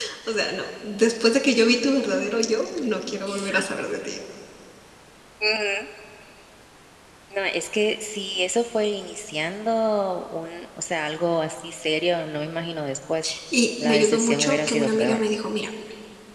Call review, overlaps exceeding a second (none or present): present